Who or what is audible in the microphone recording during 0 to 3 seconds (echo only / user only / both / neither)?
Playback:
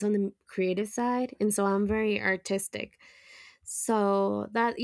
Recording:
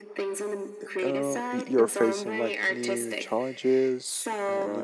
both